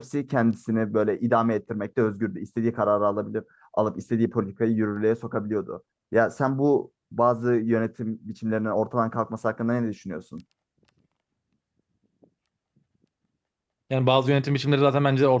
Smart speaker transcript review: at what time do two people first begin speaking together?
none

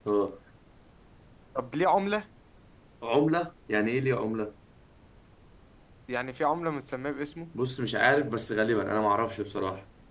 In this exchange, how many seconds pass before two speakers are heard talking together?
none

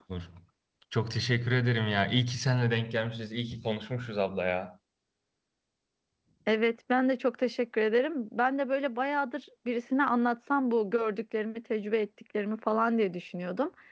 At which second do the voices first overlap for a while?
none

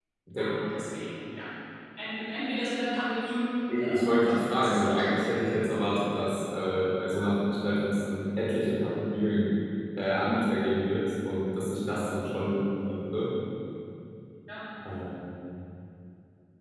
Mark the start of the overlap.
3.7 s

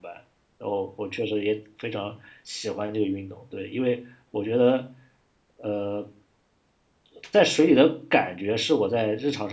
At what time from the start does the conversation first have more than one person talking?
none

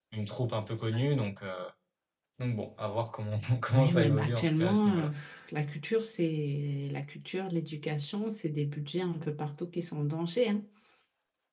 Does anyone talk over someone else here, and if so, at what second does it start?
3.7 s

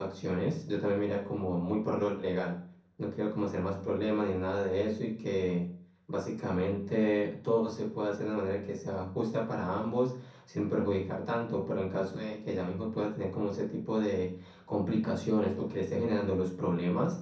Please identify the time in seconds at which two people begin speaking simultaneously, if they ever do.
none

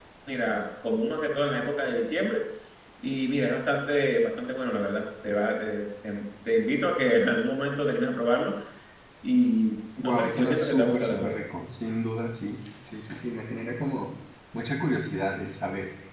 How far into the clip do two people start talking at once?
10.0 s

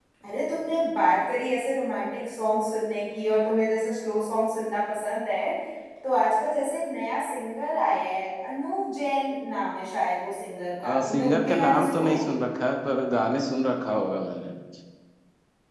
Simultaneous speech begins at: 10.8 s

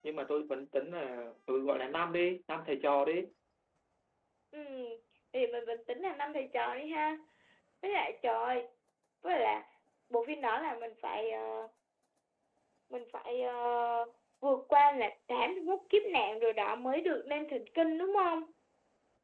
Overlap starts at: none

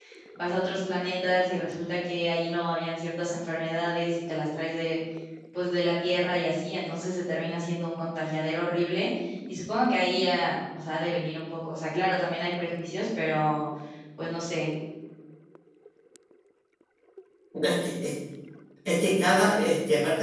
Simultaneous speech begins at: none

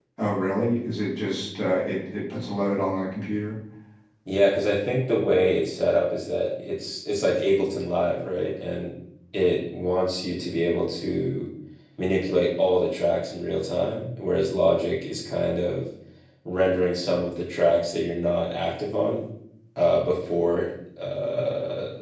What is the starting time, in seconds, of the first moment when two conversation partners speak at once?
none

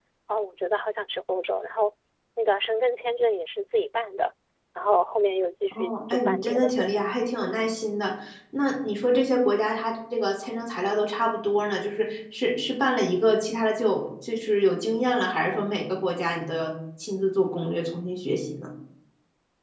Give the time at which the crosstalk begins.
5.7 s

